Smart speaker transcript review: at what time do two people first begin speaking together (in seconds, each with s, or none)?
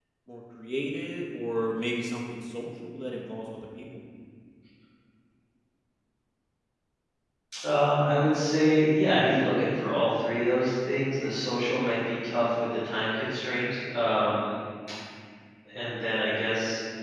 none